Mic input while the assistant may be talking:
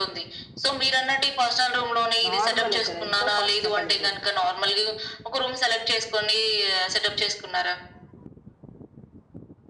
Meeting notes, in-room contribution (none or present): present